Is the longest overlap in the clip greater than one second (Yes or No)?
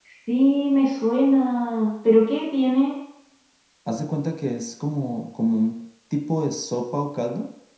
No